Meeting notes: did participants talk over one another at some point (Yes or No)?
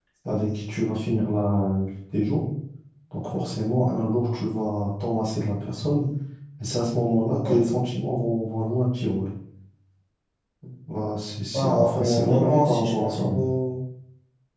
Yes